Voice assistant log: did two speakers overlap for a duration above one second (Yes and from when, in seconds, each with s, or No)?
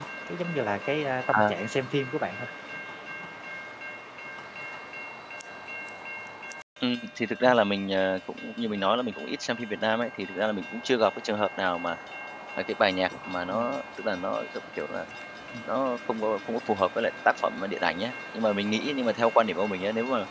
No